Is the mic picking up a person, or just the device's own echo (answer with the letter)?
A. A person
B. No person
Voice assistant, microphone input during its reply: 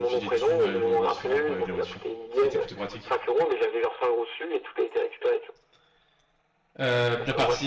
A